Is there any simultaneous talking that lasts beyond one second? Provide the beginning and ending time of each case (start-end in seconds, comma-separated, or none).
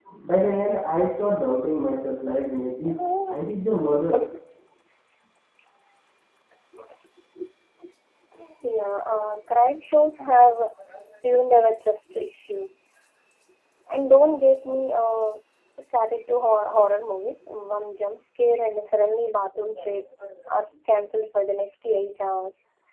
none